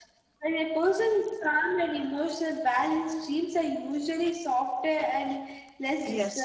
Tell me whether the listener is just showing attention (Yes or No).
No